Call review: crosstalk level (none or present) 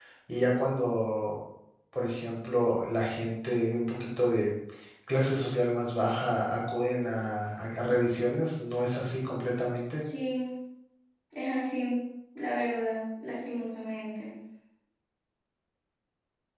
none